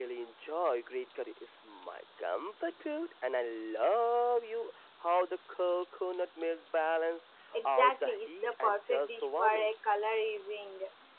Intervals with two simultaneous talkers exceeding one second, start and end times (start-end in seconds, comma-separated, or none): 7.6-9.7